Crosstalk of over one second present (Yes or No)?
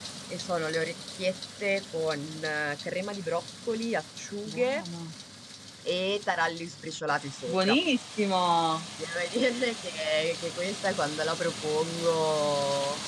No